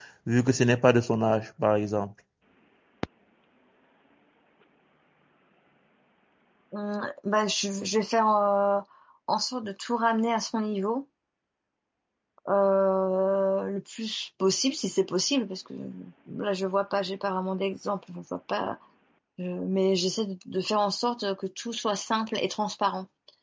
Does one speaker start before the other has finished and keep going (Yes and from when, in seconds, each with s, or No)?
No